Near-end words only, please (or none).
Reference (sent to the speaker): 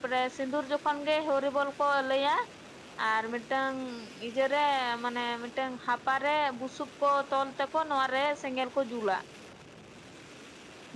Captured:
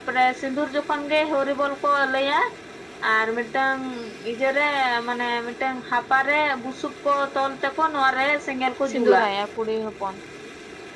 ᱥᱤᱸᱫᱩᱨᱟᱭᱟᱭ ᱠᱩᱲᱤ ᱦᱚᱯᱚᱱ